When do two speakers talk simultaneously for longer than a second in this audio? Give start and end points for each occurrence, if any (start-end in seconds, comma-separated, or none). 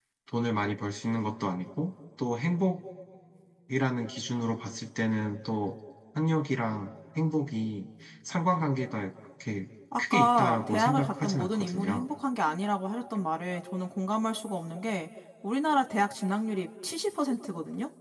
10.0-12.0